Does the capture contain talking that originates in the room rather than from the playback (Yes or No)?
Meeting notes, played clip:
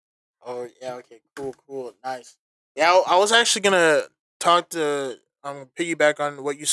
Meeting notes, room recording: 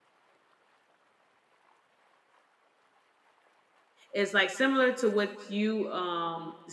Yes